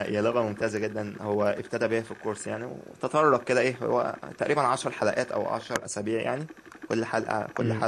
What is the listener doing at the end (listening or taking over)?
listening